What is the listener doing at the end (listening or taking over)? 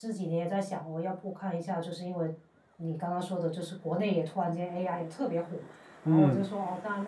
listening